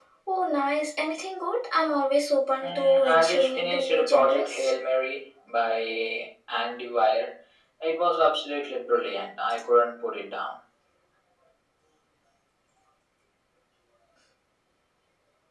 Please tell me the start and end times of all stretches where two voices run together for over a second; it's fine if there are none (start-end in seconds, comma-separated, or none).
2.6-4.7